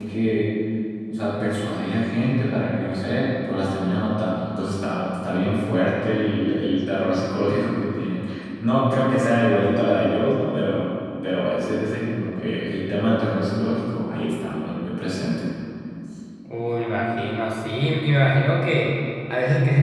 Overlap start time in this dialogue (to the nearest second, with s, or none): none